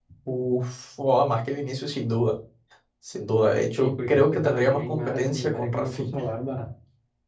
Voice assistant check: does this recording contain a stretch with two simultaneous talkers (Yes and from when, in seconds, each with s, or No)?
Yes, from 3.8 s